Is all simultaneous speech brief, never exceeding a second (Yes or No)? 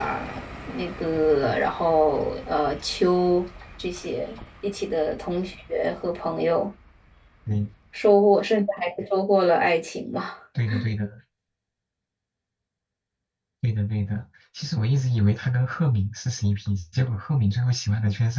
Yes